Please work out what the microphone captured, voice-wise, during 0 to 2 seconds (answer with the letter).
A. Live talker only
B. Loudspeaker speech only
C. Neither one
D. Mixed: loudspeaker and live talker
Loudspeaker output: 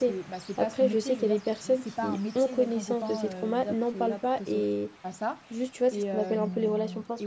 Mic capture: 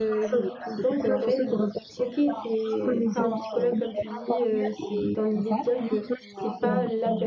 D